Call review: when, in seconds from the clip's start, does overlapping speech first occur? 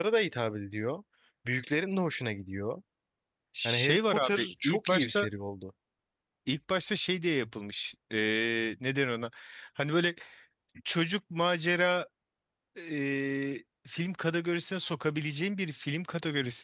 3.6 s

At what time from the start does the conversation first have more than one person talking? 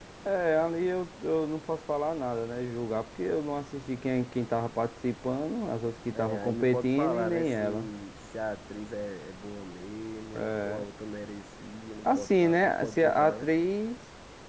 6.2 s

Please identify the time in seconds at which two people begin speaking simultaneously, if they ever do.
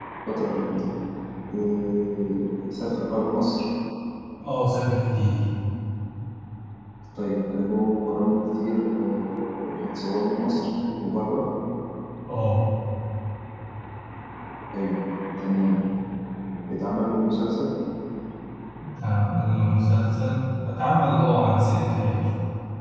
none

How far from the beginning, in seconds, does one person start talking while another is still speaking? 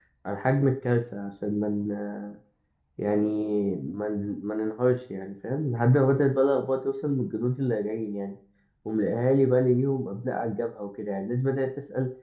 none

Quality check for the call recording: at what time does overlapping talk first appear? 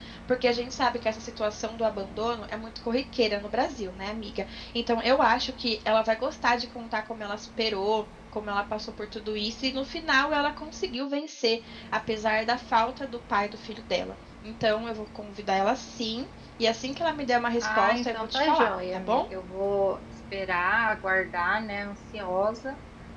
17.6 s

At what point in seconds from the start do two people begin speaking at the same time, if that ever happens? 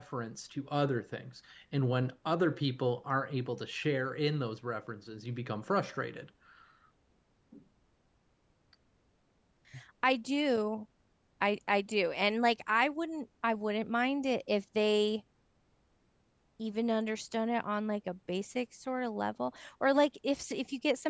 none

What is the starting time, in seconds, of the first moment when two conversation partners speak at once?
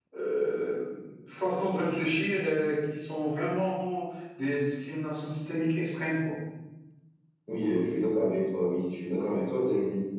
none

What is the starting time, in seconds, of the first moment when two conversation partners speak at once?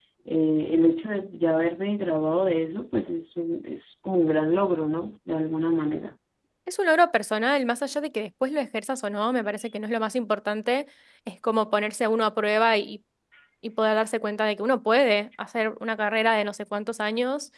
none

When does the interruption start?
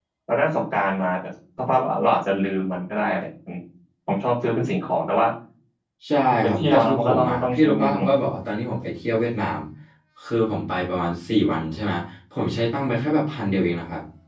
6.5 s

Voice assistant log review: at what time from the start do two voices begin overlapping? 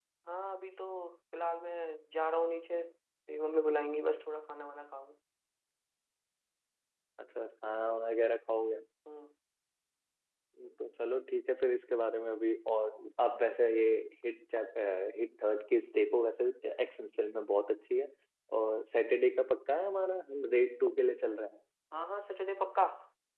none

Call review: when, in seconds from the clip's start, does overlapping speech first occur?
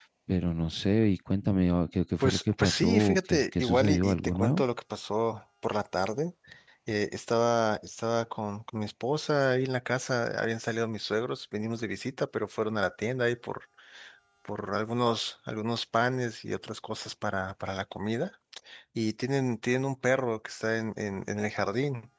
2.2 s

